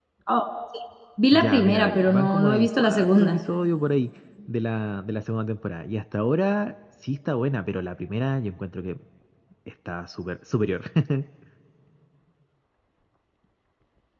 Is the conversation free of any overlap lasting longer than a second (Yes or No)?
No